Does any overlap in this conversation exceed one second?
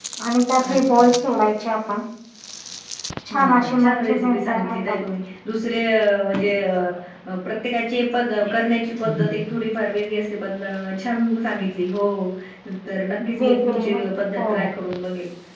Yes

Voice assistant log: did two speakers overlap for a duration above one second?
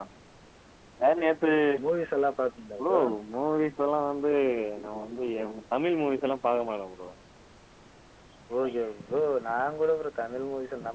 No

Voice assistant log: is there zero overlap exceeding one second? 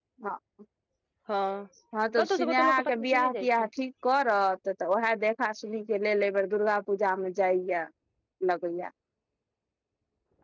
No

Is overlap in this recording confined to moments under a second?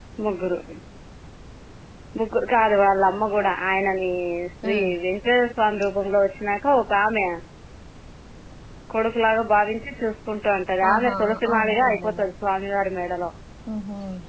No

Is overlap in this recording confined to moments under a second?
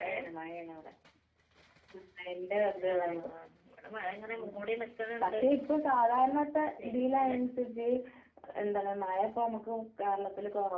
Yes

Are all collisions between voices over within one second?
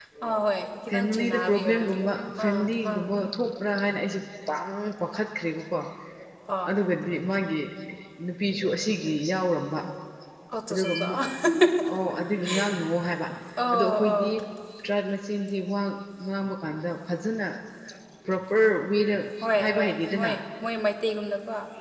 No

